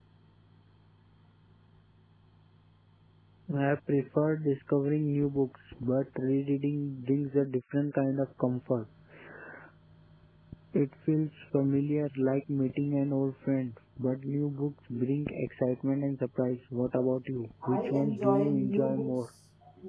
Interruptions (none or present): present